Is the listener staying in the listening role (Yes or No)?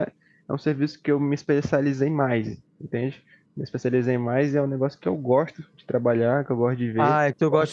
No